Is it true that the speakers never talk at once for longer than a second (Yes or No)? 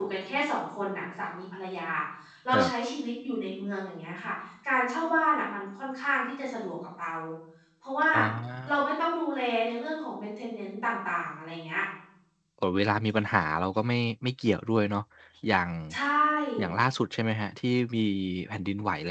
Yes